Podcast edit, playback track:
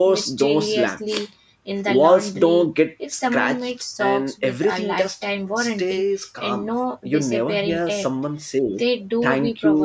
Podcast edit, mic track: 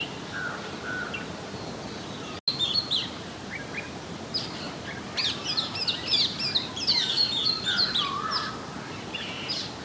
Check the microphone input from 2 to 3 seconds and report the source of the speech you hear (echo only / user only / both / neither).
neither